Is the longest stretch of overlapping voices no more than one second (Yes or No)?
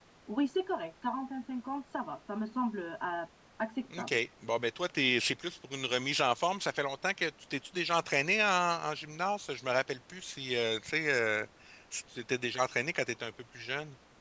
Yes